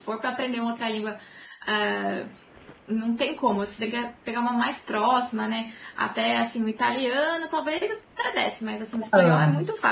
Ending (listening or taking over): listening